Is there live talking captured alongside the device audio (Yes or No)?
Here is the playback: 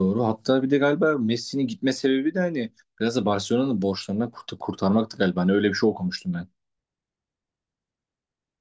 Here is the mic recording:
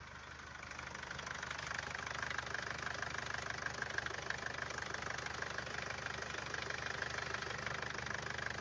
No